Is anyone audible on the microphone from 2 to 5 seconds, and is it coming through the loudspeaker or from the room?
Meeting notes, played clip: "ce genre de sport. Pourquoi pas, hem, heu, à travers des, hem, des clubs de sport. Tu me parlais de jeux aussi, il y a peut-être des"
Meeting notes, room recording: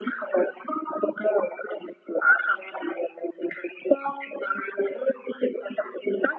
echo only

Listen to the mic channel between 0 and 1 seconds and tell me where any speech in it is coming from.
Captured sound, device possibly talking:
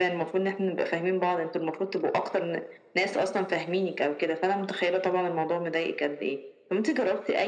echo only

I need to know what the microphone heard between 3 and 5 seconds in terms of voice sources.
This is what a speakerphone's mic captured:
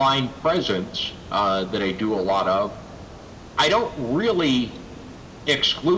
echo only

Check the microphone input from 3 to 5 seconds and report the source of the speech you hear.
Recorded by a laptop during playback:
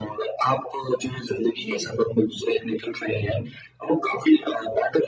echo only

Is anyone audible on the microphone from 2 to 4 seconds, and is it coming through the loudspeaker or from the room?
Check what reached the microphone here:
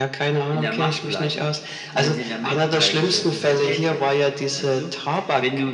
echo only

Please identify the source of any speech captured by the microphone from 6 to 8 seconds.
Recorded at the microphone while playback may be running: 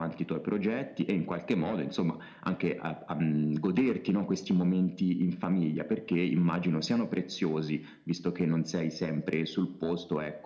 echo only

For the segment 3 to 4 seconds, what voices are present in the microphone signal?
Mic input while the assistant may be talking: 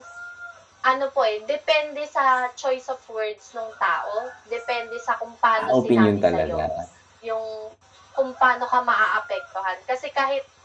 echo only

